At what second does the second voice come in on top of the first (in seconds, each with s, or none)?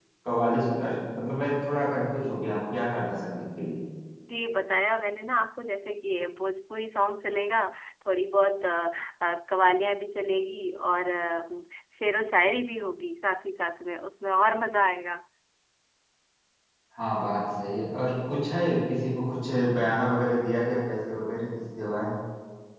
none